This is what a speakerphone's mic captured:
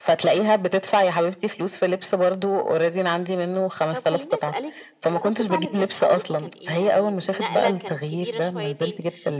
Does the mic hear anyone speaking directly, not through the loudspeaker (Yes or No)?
Yes